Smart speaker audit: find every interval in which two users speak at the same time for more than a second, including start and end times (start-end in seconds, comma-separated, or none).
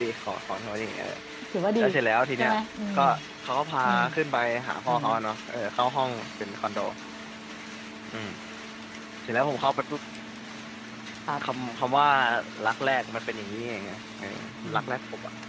none